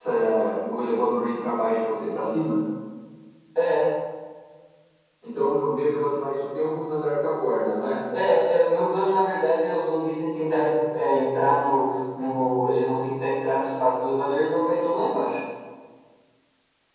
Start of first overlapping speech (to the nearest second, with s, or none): none